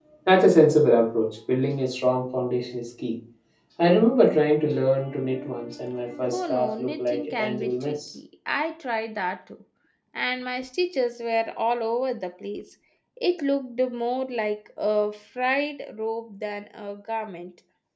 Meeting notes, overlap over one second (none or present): present